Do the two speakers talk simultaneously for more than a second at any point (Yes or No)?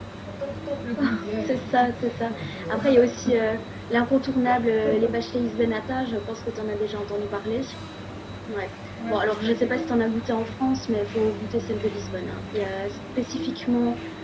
Yes